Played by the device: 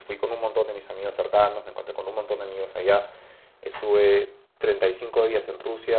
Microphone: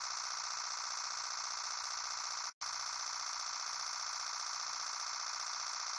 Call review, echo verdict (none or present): none